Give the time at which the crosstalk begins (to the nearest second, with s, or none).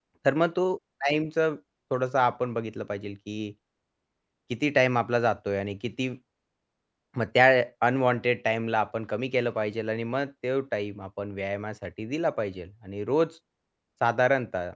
none